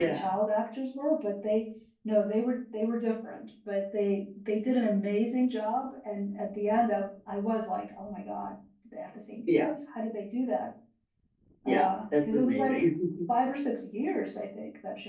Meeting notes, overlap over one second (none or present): present